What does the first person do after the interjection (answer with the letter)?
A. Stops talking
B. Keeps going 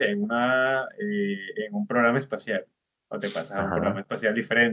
B